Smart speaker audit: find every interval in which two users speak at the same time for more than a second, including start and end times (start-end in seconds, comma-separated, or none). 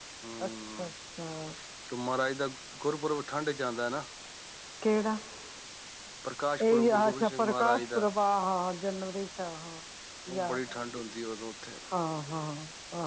6.7-8.0